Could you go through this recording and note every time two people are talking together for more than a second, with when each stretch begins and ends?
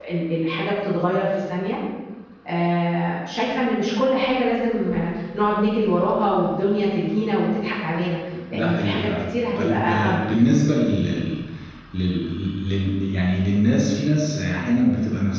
8.5-10.2

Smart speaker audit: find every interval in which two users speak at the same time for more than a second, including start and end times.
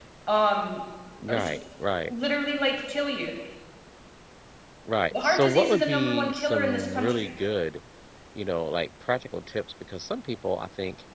5.1-7.3

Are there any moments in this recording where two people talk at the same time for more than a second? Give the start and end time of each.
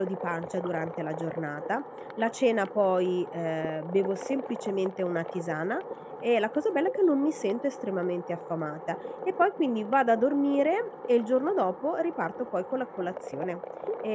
none

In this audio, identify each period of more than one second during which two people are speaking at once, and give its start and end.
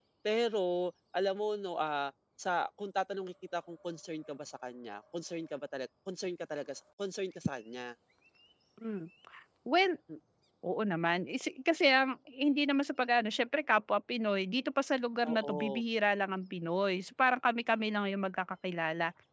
none

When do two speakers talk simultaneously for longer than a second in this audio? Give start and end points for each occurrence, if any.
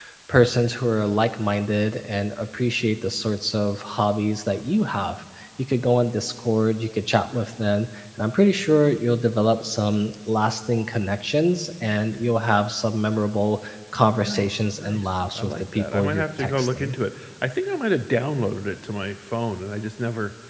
14.1-16.9

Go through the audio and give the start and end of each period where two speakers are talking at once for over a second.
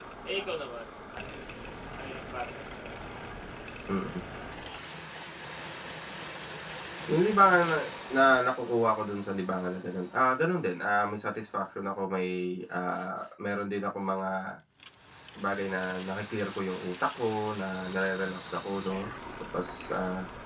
none

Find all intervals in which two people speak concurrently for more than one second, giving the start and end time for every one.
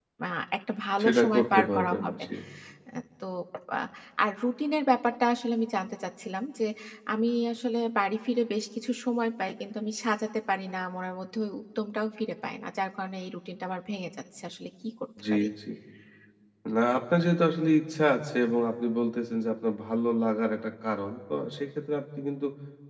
1.0-2.2

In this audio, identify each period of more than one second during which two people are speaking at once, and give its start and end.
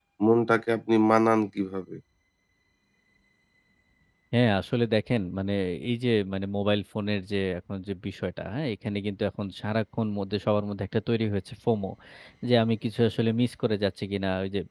none

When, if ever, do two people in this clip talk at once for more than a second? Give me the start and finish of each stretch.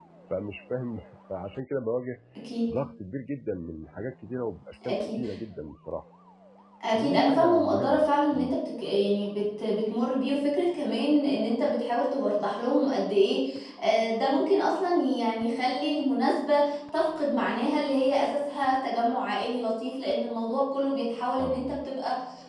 6.9-8.5

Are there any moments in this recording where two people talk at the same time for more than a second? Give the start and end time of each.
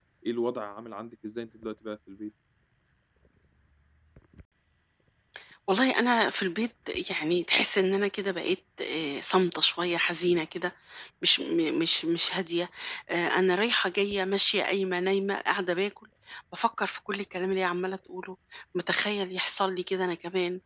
none

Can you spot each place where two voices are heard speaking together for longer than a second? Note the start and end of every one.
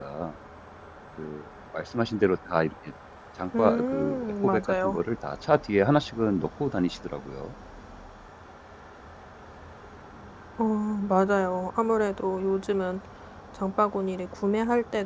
3.6-5.0

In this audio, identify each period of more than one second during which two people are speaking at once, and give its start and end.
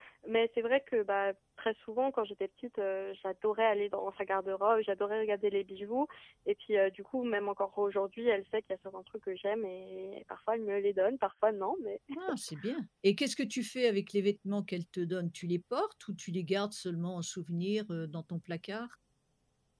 none

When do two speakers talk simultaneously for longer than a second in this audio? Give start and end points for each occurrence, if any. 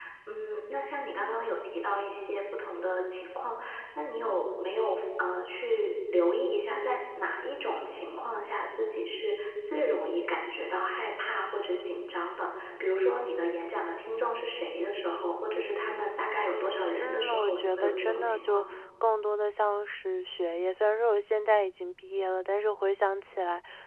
17.0-18.7

